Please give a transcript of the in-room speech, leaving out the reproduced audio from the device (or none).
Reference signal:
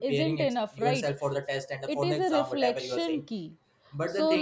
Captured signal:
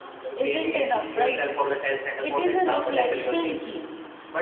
none